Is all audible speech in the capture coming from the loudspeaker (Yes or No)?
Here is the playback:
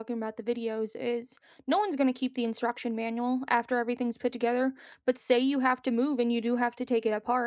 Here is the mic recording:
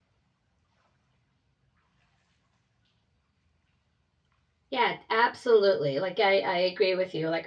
No